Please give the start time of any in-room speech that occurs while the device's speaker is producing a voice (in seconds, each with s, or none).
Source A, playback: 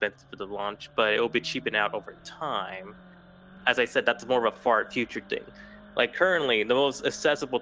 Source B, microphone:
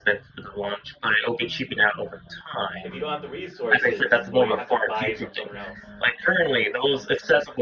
2.8 s